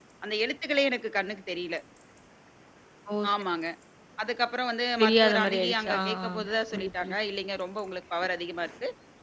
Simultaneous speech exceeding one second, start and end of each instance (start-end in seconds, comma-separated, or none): 5.0-6.2